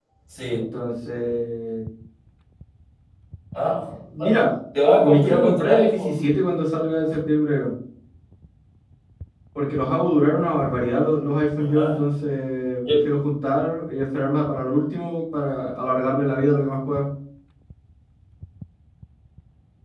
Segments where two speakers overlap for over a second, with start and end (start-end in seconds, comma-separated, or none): 5.0-6.2